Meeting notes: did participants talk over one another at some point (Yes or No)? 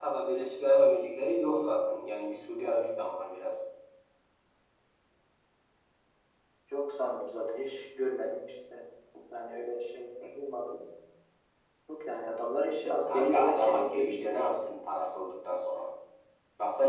Yes